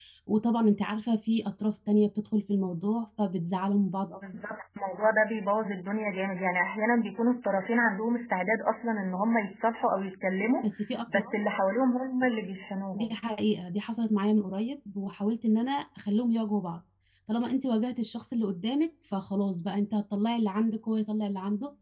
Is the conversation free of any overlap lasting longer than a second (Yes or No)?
Yes